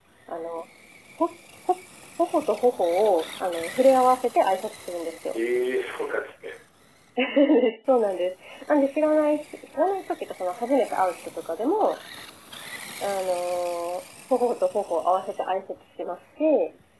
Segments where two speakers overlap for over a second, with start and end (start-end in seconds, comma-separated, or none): none